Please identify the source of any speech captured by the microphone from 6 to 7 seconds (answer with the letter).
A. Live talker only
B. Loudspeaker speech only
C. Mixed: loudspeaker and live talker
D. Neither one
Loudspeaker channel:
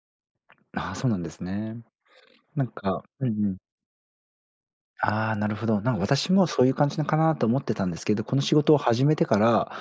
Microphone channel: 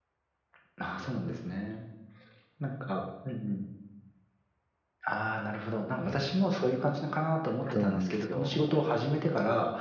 B